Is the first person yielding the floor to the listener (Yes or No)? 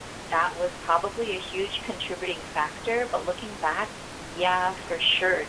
No